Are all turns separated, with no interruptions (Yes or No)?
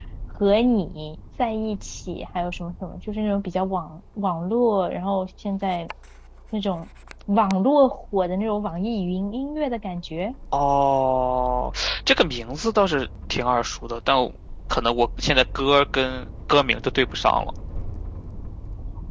Yes